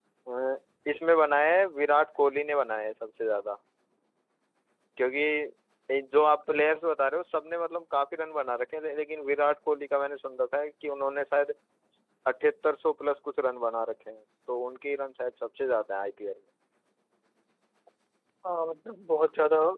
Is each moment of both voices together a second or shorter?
Yes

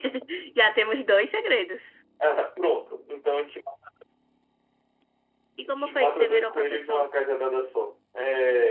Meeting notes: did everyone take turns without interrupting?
No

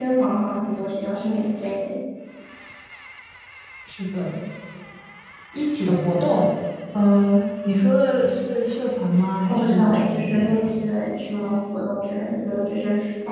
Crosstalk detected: Yes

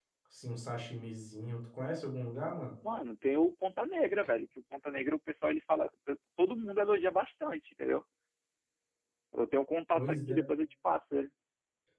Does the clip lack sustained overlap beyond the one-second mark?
Yes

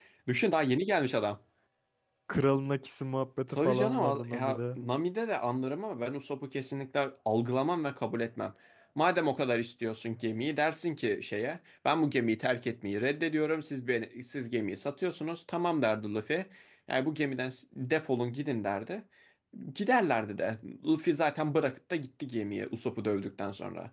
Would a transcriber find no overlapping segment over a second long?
No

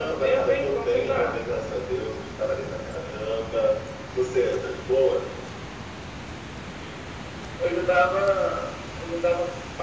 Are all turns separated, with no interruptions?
No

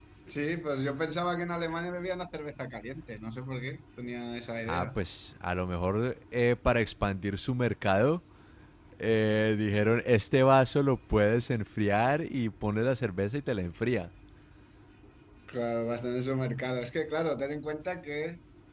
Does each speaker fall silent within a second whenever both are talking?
Yes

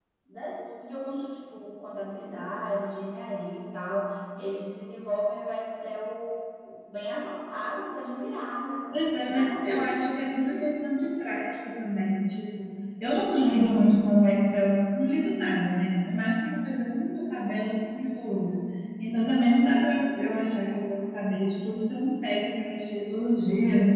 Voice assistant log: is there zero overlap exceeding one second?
No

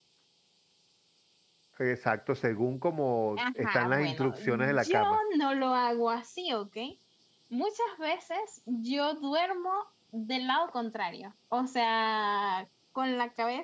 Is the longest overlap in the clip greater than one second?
Yes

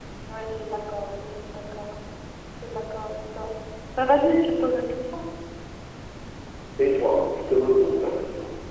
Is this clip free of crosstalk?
Yes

